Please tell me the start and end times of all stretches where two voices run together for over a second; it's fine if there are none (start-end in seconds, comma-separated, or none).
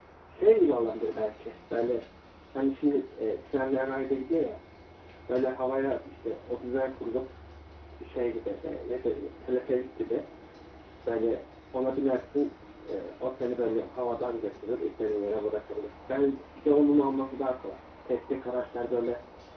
none